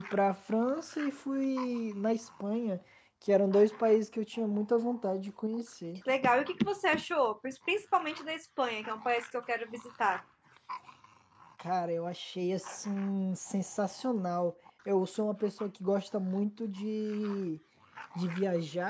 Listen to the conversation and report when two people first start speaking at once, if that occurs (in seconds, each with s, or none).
none